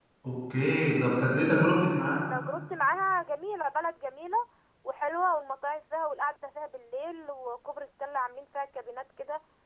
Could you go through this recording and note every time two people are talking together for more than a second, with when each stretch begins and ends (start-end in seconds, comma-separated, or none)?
none